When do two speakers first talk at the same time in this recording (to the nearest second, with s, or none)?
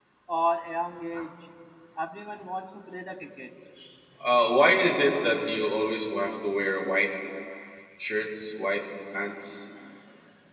none